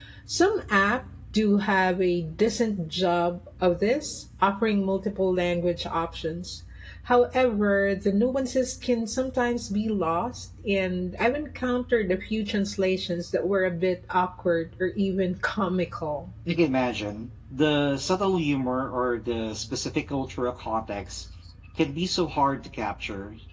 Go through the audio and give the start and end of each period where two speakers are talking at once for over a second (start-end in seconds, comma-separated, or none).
none